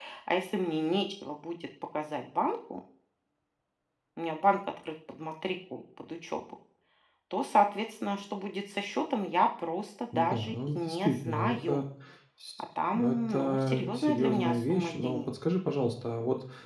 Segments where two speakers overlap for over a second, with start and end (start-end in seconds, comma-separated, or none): 10.1-11.8, 12.9-15.2